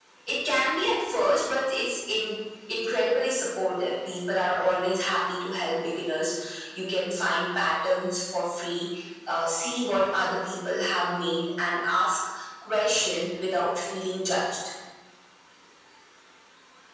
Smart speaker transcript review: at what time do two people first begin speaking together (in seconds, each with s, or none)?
none